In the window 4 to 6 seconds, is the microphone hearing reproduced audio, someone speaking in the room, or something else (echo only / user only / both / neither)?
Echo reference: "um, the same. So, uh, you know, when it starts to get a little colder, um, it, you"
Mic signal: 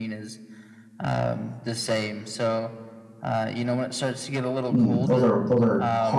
both